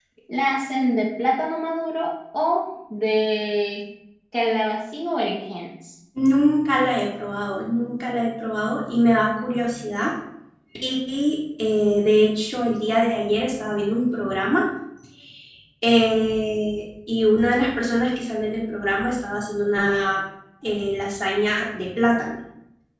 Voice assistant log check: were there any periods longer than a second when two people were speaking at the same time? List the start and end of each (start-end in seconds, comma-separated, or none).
none